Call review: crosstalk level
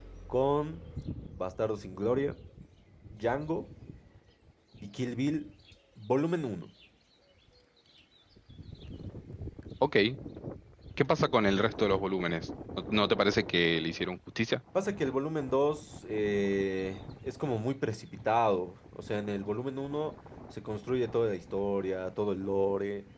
none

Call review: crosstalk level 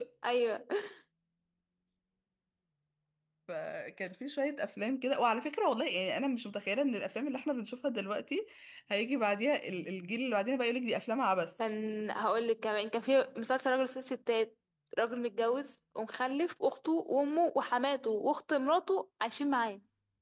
none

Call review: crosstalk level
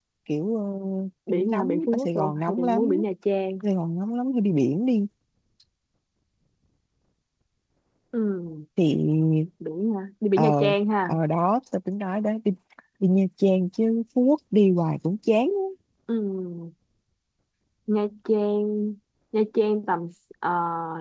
present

